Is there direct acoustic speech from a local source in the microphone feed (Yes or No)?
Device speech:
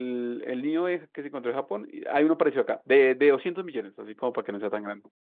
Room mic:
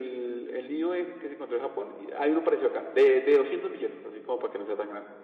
No